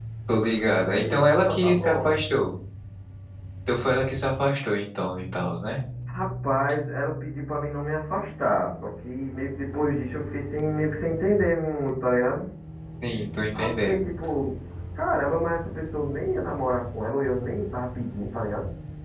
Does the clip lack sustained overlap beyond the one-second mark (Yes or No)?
No